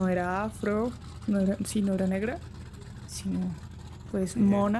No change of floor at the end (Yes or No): Yes